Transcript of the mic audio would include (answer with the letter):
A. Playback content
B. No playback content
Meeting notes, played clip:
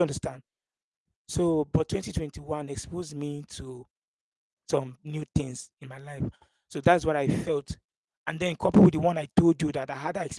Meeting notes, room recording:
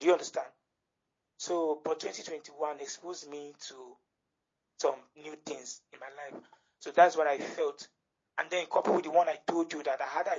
A